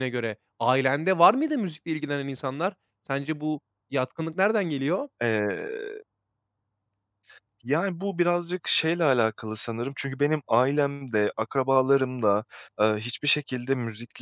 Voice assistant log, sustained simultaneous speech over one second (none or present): none